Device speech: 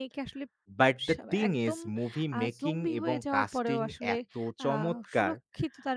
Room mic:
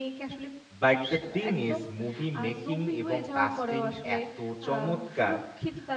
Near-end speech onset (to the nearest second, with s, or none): none